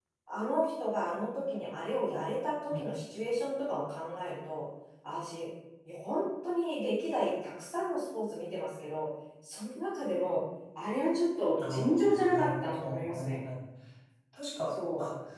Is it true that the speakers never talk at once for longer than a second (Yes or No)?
No